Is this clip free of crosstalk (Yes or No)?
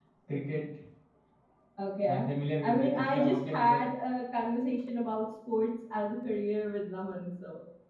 No